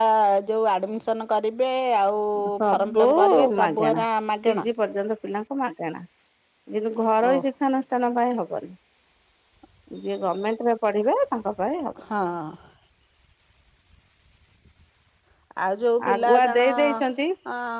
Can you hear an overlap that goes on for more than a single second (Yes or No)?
Yes